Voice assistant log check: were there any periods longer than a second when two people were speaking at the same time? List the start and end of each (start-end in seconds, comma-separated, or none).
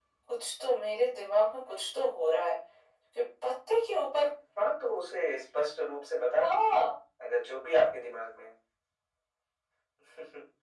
none